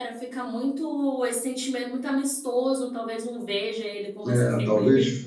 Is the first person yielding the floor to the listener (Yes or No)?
Yes